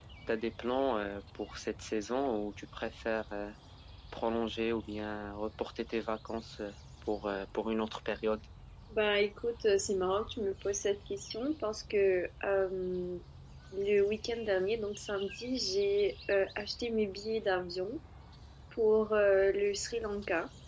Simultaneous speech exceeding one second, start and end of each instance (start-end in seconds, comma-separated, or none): none